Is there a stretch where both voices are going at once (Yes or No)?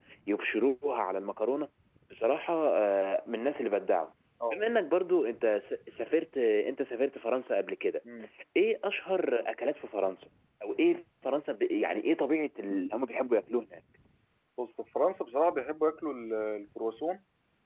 No